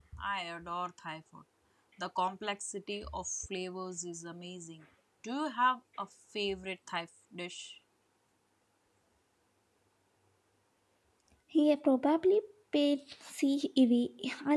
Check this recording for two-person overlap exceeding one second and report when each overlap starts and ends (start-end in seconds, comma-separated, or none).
none